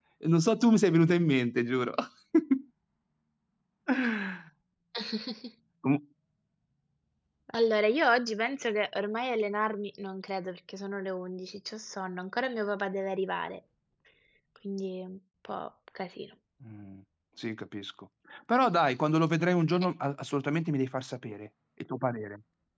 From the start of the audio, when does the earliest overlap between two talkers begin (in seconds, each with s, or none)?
none